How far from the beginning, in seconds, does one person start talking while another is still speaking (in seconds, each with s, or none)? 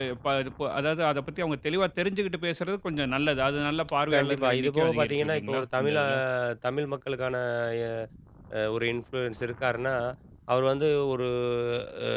4.1 s